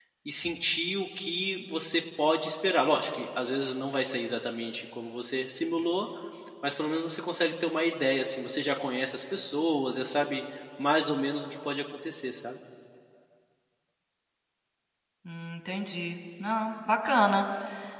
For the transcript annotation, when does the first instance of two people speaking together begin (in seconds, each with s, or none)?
none